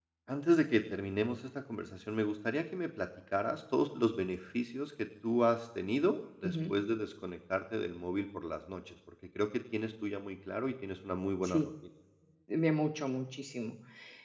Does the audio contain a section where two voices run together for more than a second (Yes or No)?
No